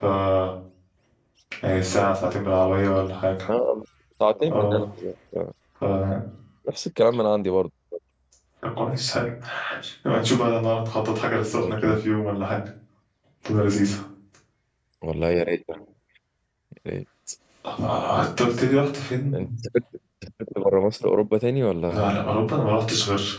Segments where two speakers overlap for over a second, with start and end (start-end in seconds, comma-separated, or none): none